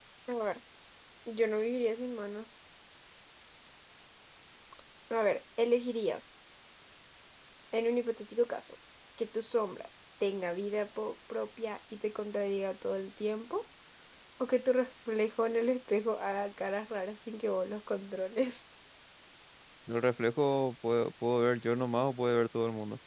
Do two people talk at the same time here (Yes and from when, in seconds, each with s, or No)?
No